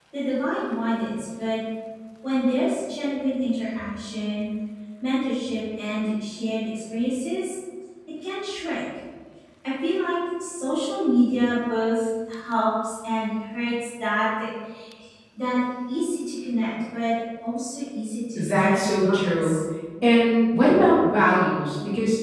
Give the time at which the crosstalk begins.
18 s

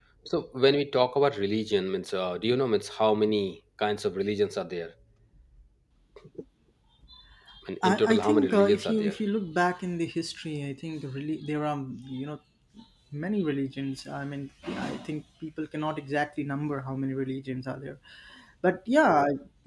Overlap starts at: 8 s

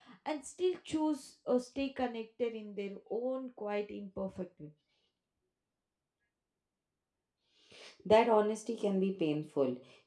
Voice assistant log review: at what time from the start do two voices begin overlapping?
none

